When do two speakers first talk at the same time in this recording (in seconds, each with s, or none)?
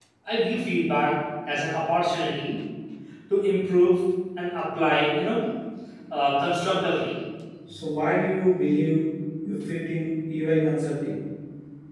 none